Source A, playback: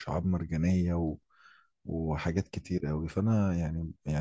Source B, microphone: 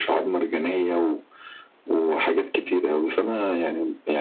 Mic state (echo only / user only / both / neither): echo only